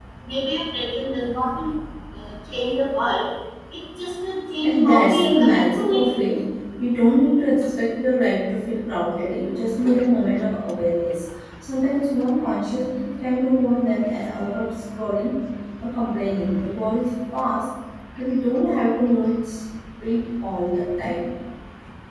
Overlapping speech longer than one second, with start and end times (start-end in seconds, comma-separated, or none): 4.6-6.2